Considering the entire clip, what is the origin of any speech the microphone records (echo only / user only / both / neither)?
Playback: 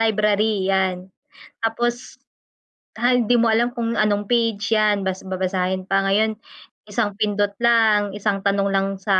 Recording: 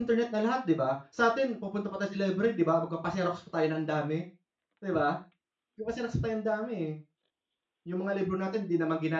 user only